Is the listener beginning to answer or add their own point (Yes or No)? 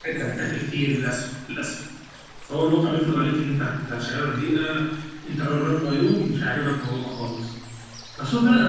No